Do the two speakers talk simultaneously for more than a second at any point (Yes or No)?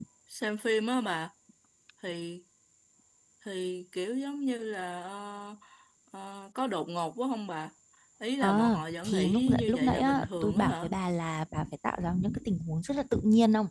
Yes